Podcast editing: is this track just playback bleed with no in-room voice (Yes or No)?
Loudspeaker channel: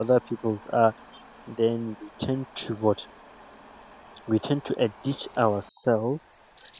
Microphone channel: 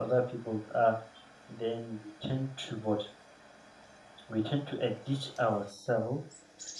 Yes